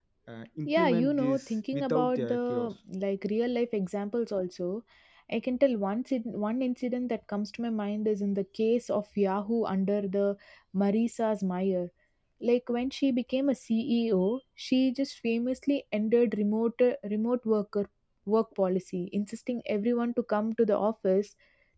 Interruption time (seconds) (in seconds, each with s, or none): 0.7 s